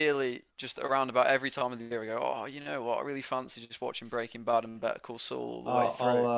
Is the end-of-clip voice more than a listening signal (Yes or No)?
Yes